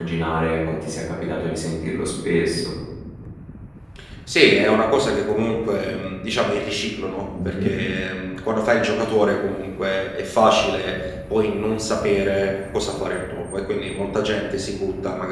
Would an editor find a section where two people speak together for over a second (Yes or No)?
No